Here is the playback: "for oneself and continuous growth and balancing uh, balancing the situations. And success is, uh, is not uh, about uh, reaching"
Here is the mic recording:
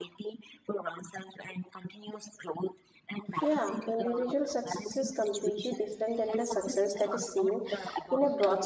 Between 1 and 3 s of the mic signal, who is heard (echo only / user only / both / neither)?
echo only